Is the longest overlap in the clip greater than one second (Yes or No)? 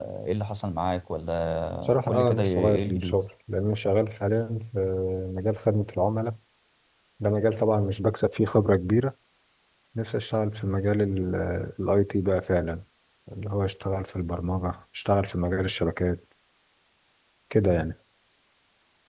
Yes